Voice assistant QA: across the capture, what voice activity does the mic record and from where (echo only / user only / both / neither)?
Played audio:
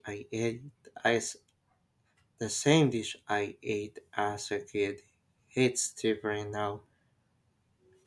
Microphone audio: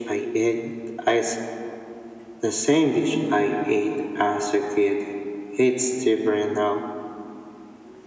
echo only